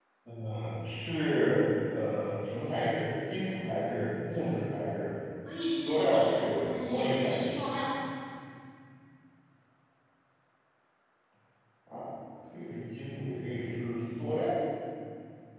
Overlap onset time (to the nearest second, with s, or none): 6 s